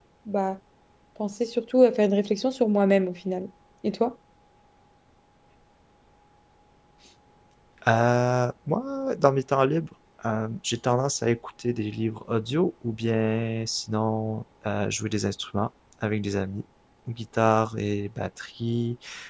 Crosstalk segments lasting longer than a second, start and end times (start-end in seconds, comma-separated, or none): none